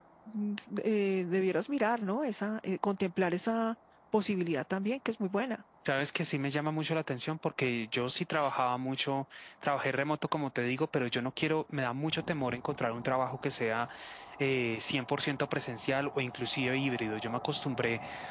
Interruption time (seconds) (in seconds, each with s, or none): none